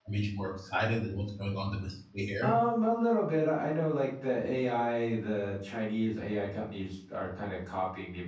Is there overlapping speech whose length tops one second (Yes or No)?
No